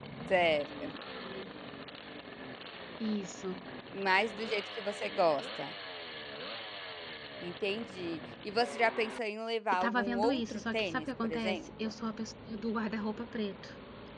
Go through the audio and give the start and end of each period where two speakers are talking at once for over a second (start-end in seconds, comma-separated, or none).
9.7-11.9